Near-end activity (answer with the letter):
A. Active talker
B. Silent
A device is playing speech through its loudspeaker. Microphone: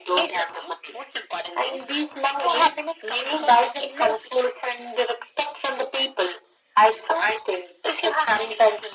B